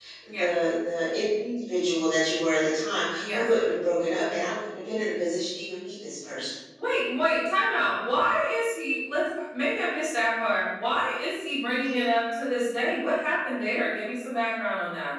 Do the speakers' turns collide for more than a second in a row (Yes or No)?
No